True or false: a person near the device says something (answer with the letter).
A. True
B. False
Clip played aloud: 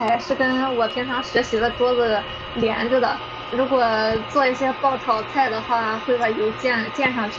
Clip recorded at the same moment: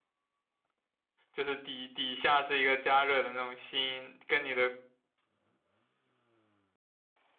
A